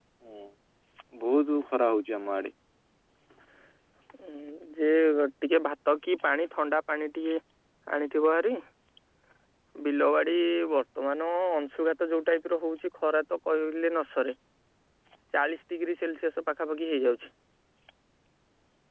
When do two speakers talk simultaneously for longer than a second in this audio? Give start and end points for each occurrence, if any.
none

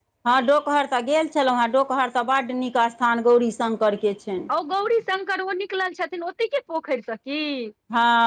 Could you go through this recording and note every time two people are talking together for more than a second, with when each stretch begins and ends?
none

